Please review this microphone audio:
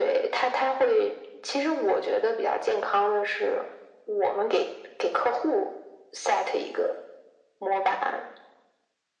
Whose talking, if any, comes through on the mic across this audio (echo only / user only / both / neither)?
echo only